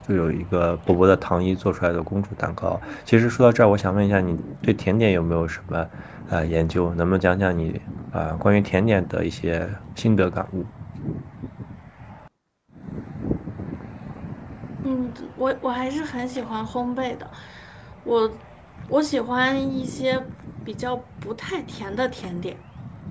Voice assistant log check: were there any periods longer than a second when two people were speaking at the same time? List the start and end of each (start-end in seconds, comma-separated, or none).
none